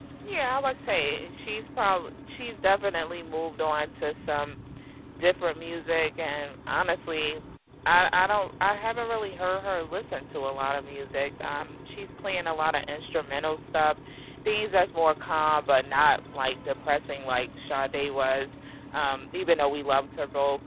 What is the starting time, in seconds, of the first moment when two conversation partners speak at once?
none

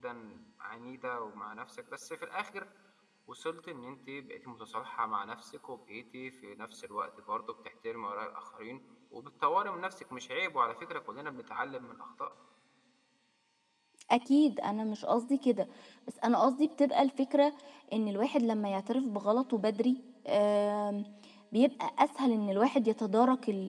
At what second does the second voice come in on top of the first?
none

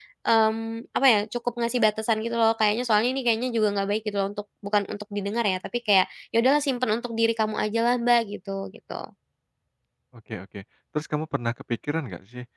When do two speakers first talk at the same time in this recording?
none

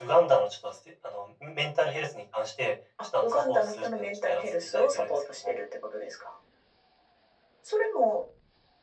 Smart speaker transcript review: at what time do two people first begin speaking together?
3.2 s

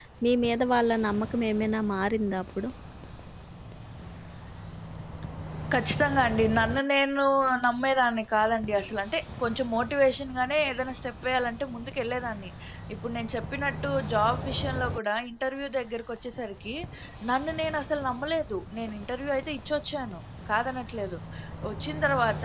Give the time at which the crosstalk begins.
none

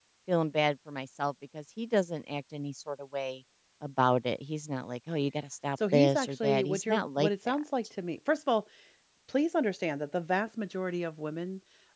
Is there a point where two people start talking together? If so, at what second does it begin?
5.8 s

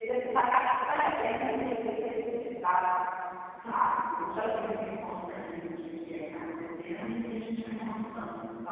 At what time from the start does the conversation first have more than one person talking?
none

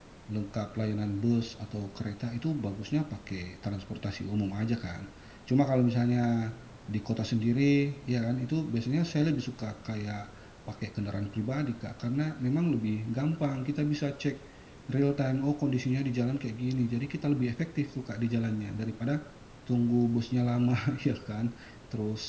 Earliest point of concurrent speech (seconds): none

